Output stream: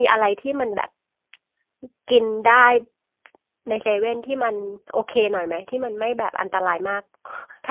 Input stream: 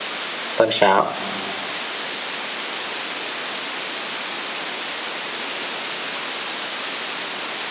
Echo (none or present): none